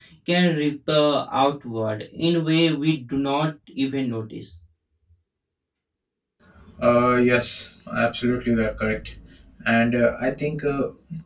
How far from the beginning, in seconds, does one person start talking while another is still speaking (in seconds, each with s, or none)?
none